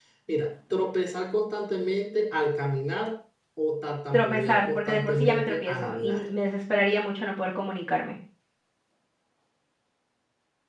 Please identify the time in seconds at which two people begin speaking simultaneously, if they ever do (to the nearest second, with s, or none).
4 s